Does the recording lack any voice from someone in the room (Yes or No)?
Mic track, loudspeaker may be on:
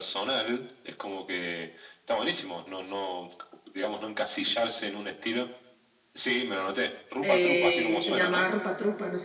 No